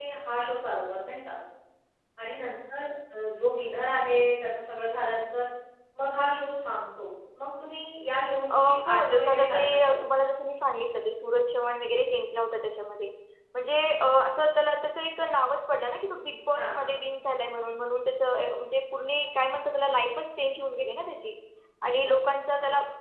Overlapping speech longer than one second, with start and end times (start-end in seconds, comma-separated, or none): 8.5-10.0